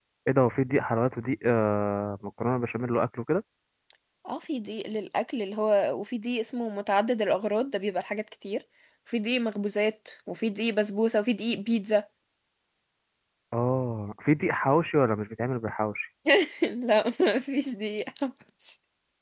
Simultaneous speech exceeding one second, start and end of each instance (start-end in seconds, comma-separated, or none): none